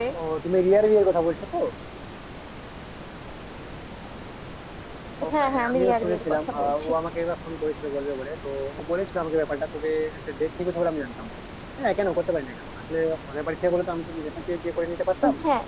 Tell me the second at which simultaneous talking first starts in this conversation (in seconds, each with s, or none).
5.3 s